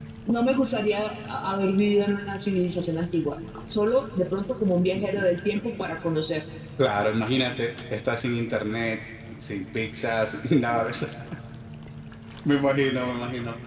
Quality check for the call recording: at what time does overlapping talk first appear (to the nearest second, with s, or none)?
none